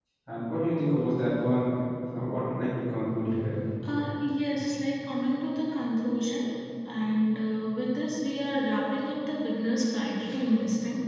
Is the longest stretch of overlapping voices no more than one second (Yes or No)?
Yes